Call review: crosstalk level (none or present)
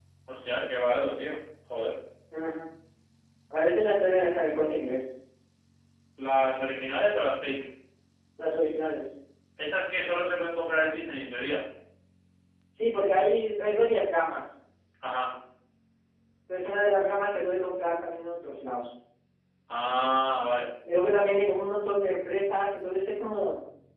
none